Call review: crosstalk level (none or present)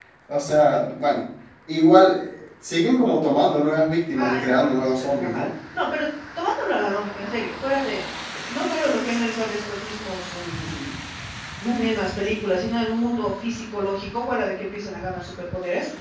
present